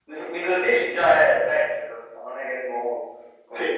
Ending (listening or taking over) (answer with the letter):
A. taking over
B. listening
A